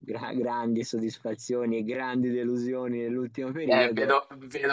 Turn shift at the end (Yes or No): Yes